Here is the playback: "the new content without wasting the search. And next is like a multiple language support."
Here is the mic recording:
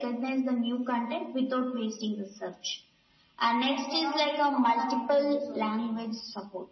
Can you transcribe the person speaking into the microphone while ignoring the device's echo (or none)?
that cannot be found on a tvs or a theater